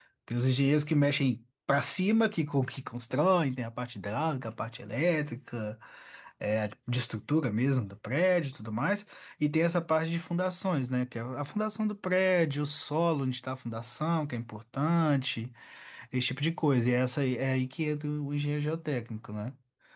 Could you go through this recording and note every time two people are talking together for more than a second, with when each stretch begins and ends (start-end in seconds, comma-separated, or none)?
none